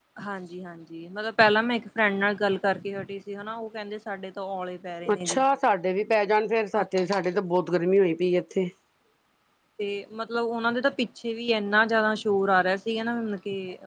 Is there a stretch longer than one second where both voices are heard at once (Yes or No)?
No